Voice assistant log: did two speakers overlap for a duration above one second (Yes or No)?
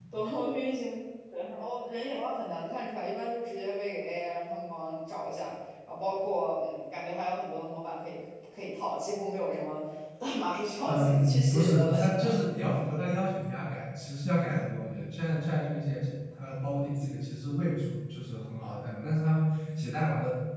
Yes